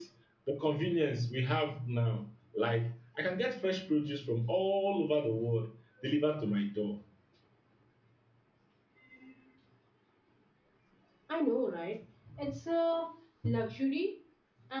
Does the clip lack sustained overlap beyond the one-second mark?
Yes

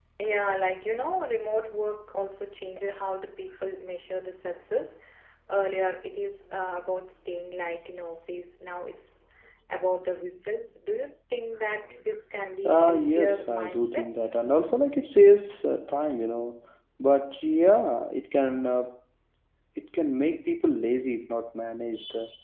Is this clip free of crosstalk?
No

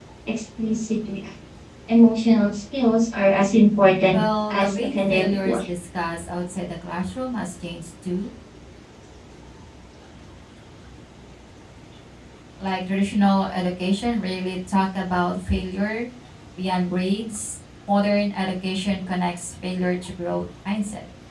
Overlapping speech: Yes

